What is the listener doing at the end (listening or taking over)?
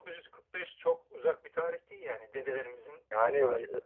taking over